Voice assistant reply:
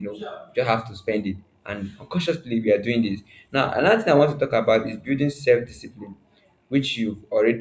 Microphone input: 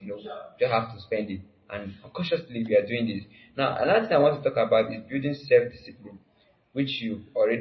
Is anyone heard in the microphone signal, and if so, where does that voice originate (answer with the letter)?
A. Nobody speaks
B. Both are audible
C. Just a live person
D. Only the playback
D